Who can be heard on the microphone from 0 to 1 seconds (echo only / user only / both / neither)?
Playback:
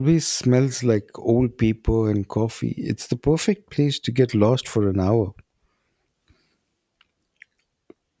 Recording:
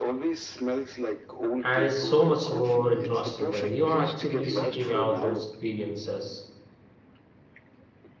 echo only